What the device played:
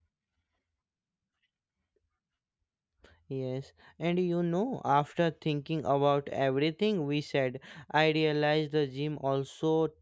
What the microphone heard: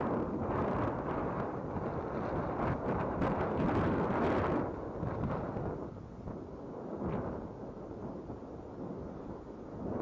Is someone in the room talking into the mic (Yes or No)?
No